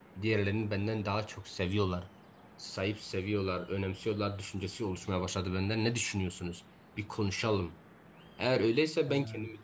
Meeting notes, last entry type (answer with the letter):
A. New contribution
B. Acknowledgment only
B